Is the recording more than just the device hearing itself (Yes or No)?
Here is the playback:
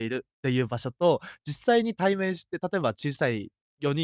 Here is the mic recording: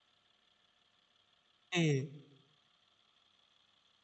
Yes